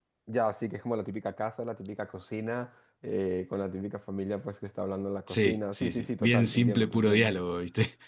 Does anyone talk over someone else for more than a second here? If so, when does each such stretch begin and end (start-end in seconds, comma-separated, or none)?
5.3-7.3